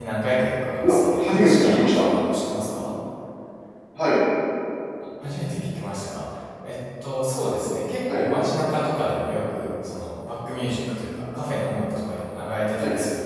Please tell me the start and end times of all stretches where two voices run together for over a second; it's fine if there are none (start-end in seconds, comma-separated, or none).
0.8-2.0